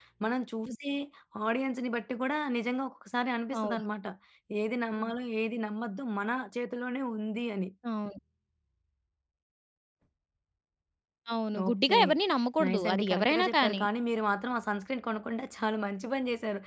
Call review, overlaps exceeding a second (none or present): present